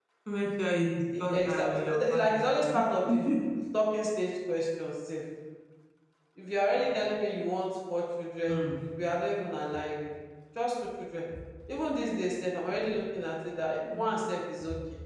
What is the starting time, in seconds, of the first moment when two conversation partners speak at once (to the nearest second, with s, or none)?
1 s